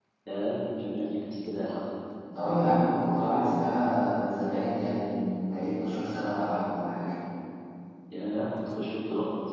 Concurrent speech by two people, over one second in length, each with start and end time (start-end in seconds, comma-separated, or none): none